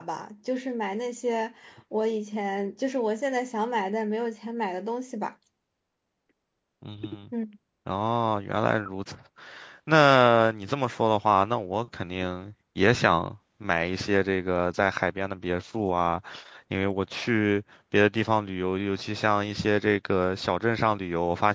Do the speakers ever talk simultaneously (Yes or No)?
No